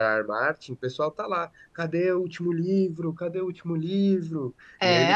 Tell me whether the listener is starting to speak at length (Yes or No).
Yes